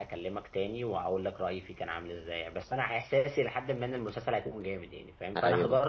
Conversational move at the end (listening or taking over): listening